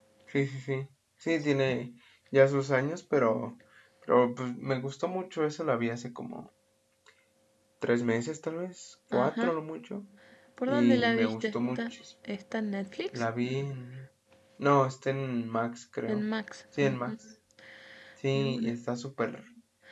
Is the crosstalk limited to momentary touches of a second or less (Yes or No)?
No